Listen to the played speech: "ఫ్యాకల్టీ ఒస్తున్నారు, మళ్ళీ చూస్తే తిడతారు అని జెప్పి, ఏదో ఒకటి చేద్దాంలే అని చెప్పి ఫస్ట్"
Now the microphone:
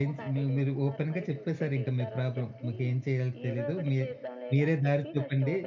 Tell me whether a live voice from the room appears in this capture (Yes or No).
Yes